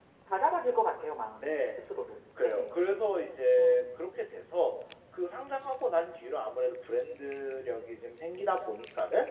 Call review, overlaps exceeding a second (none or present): none